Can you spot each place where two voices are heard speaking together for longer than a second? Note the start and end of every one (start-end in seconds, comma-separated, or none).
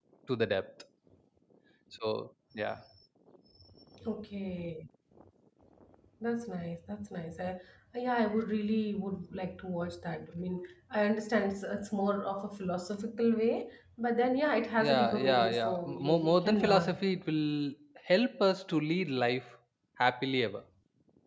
14.8-17.0